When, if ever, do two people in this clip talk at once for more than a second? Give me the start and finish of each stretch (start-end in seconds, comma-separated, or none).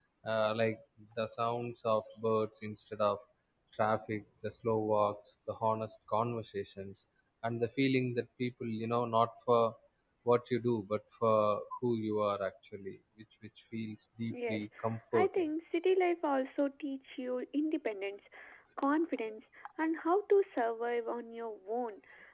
none